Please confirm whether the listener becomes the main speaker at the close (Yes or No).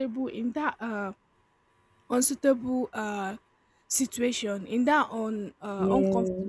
No